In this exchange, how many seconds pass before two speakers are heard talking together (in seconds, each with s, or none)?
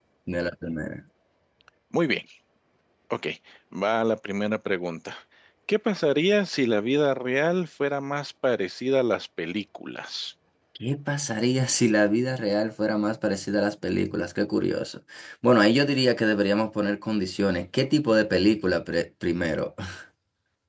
none